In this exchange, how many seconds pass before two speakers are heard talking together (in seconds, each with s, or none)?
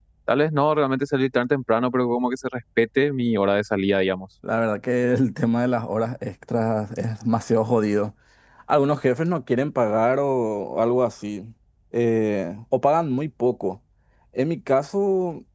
none